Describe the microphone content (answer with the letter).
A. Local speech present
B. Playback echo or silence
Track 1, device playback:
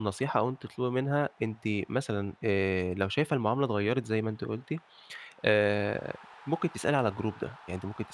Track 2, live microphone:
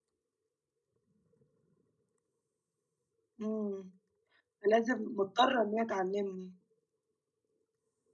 A